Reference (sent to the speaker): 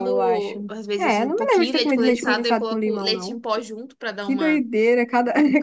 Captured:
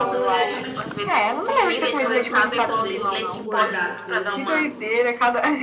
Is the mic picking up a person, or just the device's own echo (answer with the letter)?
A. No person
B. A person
B